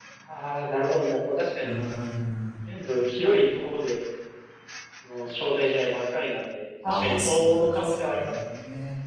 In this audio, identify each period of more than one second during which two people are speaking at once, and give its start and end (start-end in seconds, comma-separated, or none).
6.9-8.3